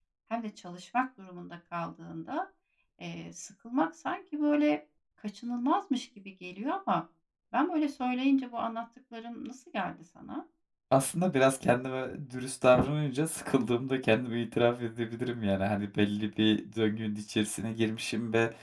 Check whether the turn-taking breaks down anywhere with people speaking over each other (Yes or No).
No